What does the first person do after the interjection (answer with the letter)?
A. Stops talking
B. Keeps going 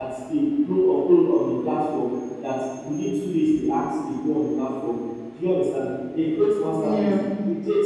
B